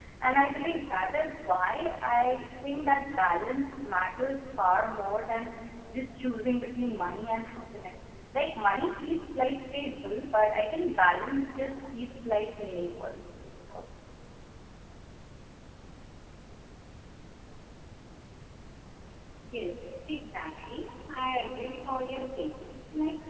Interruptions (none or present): none